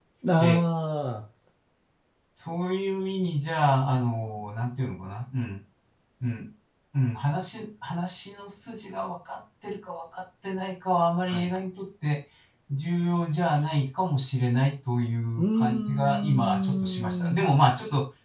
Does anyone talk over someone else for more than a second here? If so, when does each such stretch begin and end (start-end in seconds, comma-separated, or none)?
15.4-17.8